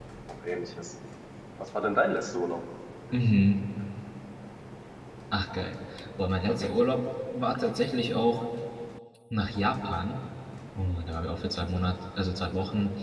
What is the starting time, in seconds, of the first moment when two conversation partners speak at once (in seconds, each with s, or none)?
none